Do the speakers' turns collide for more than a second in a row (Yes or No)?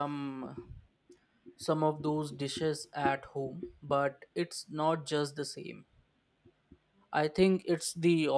No